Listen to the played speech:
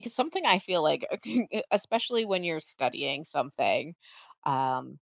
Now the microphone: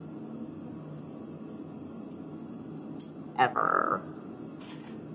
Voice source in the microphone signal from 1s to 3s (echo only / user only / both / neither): neither